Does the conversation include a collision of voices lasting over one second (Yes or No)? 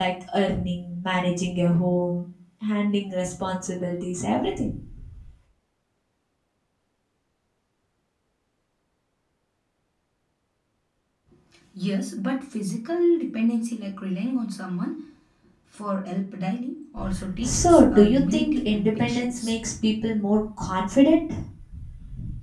Yes